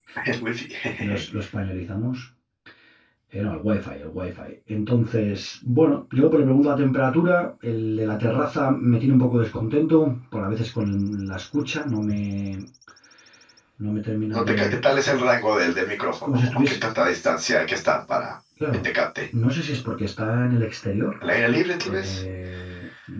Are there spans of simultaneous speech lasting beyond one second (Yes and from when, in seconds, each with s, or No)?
No